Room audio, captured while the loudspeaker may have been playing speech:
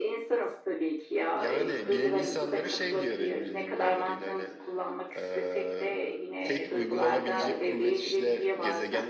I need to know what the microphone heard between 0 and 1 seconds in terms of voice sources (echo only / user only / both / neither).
echo only